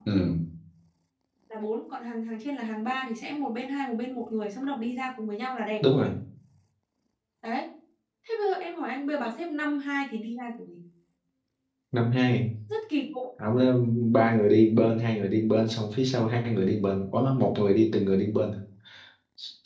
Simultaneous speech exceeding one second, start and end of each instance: none

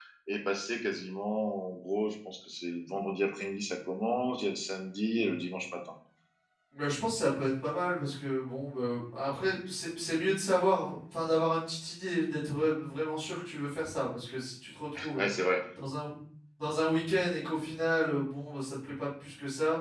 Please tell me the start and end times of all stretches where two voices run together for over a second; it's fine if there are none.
none

